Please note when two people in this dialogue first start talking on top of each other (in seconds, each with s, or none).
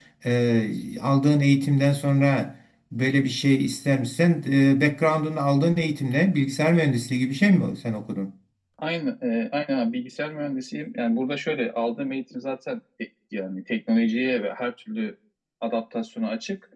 none